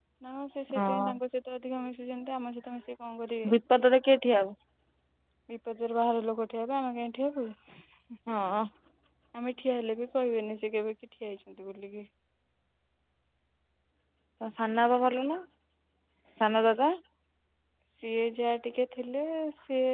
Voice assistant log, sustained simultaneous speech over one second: none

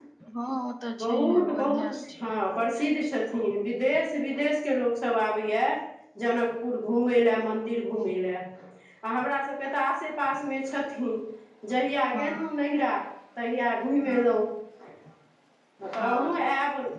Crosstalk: present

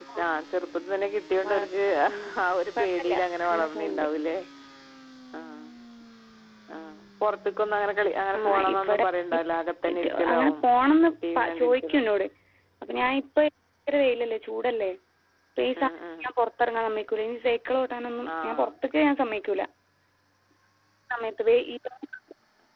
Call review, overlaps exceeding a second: present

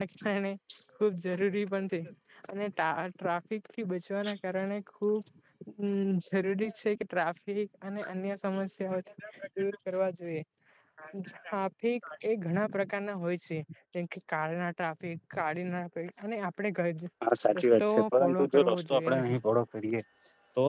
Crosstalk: present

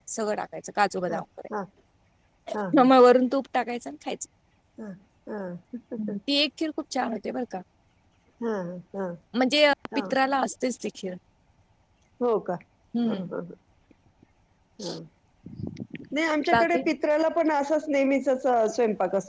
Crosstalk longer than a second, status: none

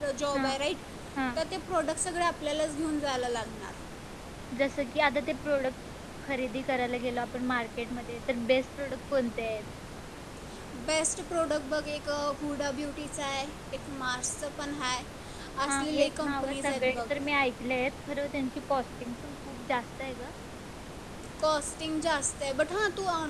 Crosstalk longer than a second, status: present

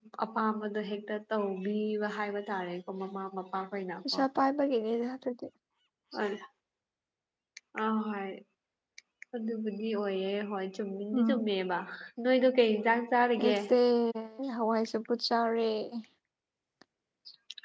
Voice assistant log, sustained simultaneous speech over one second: none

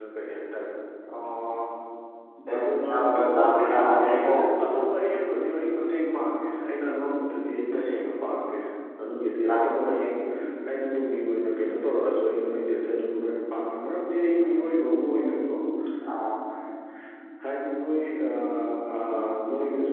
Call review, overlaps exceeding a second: present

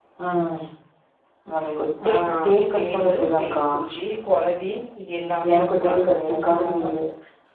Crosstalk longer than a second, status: present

